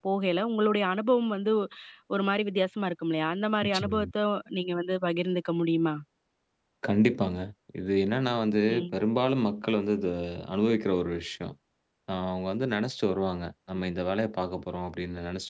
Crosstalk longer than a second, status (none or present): none